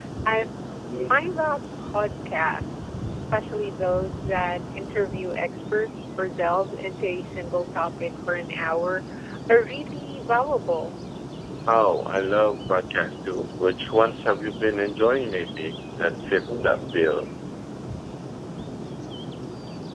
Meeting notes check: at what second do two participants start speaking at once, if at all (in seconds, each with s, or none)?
none